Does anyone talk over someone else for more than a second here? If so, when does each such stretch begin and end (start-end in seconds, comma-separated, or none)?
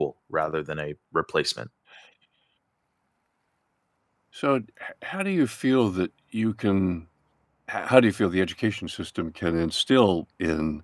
none